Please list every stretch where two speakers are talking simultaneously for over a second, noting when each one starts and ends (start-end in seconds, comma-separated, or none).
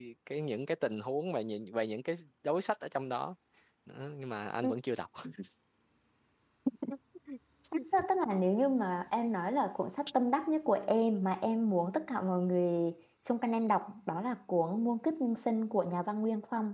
none